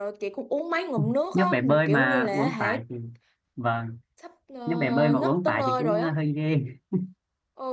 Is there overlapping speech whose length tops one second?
Yes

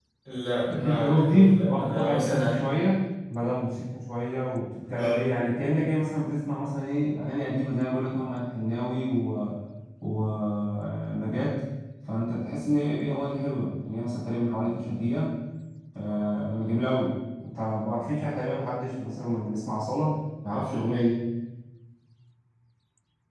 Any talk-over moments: Yes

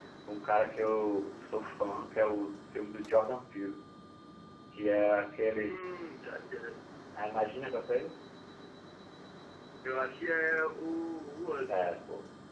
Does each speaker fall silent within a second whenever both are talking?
Yes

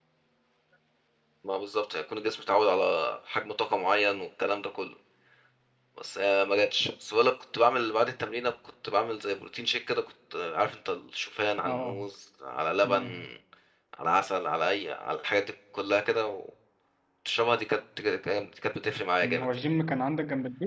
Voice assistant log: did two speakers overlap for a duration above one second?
No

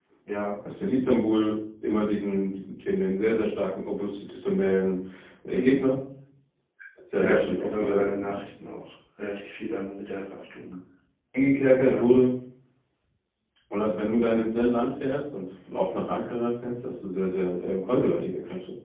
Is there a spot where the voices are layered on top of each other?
Yes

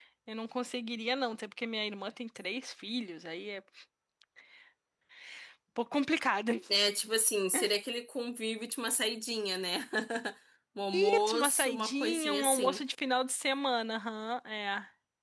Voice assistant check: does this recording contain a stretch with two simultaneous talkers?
Yes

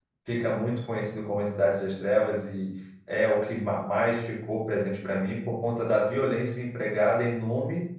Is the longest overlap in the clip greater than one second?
No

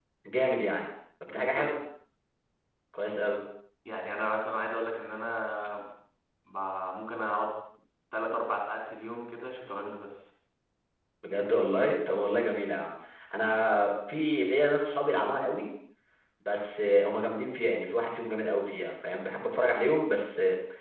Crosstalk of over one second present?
No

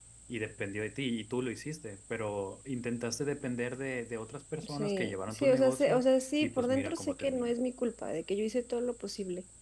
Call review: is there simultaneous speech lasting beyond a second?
Yes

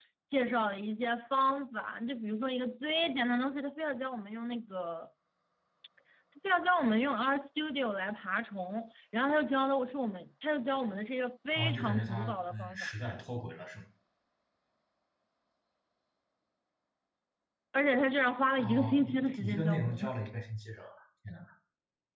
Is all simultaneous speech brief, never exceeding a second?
No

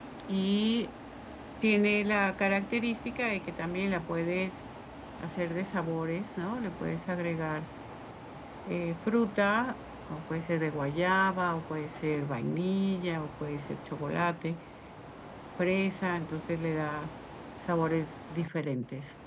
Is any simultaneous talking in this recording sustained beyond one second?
No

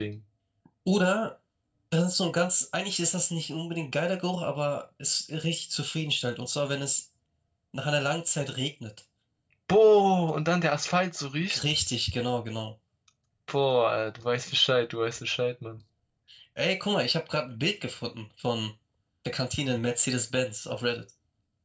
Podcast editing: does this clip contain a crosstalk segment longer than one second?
No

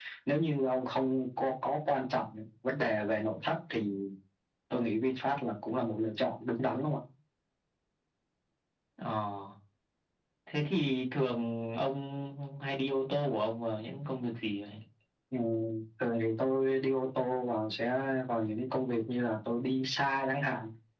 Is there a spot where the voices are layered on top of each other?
No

